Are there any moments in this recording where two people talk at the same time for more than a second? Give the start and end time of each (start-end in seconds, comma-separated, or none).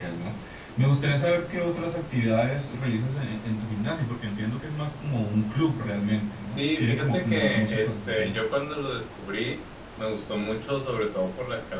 6.5-8.4